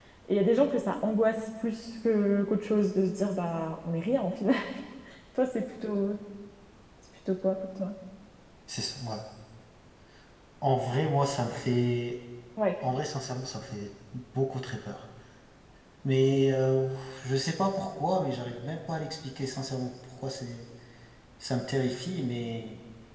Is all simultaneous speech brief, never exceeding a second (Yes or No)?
Yes